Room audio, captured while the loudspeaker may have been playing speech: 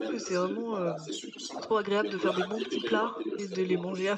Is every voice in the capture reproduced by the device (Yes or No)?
No